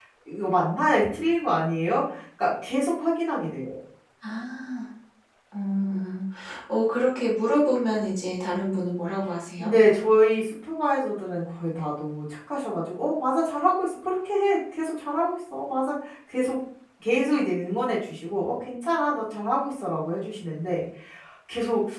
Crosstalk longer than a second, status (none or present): none